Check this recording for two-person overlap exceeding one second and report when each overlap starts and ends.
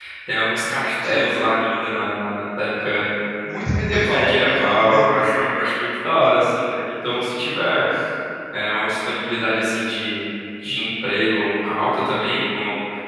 3.9-5.2

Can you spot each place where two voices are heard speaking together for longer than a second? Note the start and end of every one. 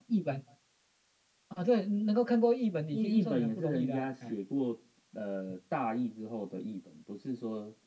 2.9-4.3

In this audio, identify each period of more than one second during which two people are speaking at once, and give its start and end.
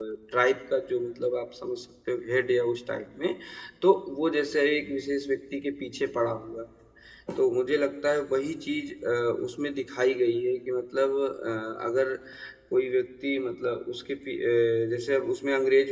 none

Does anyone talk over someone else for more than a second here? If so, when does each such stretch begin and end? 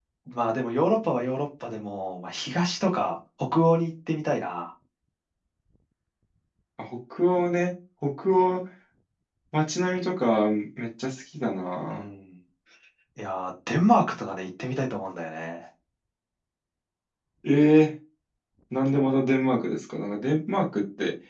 none

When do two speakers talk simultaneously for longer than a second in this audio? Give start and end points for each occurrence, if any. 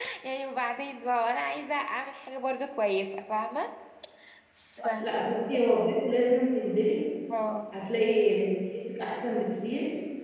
none

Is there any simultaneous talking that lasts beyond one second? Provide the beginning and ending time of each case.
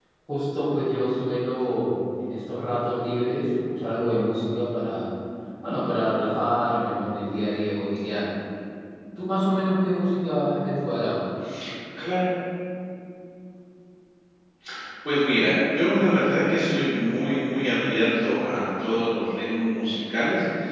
none

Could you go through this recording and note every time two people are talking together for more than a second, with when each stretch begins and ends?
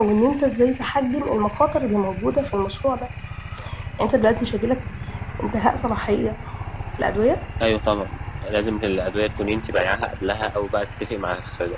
none

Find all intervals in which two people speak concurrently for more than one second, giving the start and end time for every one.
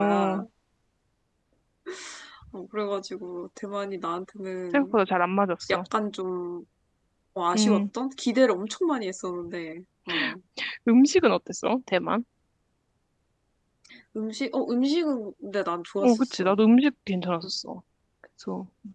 none

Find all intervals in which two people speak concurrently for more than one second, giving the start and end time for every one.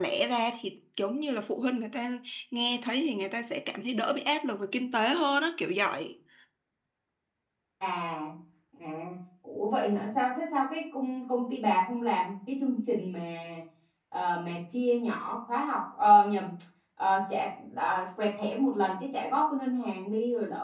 none

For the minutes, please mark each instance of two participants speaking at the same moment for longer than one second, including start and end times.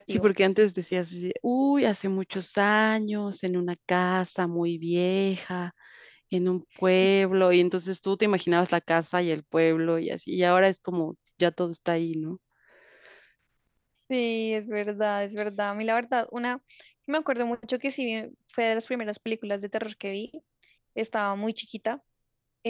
none

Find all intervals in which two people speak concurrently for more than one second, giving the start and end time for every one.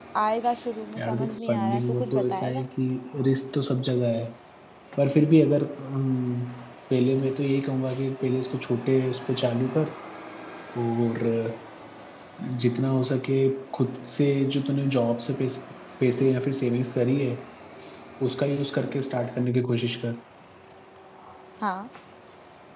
1.0-2.6

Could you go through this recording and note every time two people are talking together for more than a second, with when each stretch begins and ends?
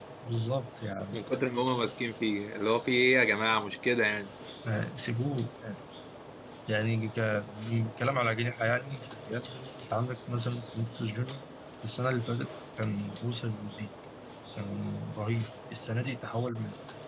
none

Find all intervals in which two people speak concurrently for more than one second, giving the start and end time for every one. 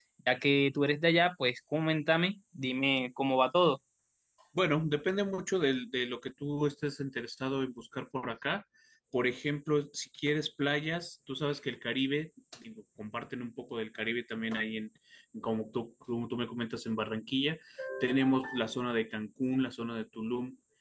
none

